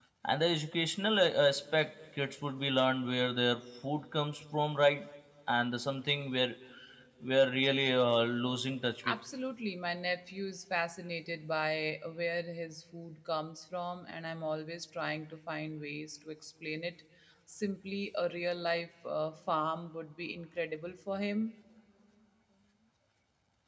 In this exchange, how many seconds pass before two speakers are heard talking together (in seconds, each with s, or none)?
none